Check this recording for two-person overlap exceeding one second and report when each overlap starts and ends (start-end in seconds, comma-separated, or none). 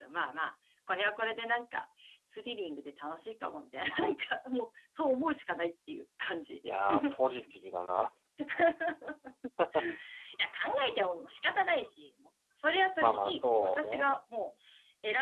13.0-14.2